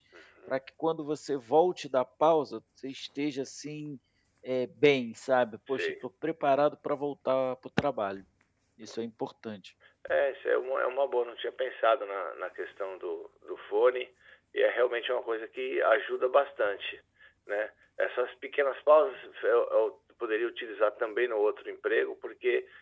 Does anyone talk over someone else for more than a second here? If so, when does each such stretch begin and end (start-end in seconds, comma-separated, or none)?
none